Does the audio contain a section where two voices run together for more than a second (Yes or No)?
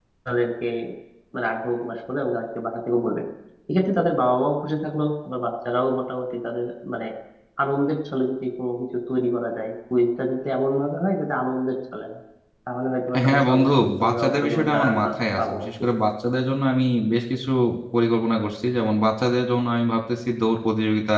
Yes